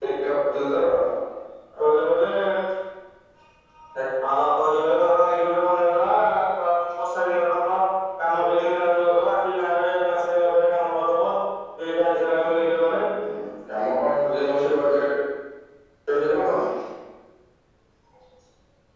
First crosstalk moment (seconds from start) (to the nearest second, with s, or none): none